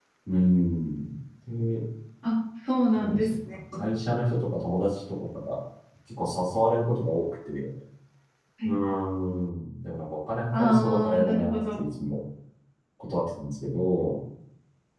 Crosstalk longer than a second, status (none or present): present